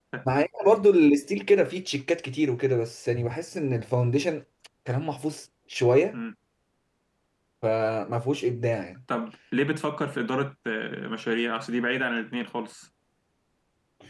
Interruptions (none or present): none